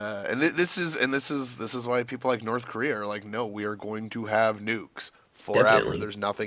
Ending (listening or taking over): listening